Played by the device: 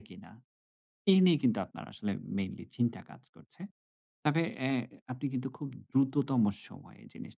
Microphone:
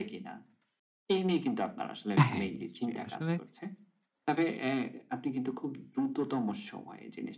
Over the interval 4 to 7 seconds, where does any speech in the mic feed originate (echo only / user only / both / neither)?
echo only